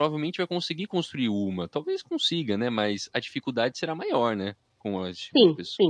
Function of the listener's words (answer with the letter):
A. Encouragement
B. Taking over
B